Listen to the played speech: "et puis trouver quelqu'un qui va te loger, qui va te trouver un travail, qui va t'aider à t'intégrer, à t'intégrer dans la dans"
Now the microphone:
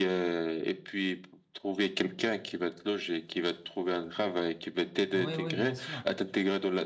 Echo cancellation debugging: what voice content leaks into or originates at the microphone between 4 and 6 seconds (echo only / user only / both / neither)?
both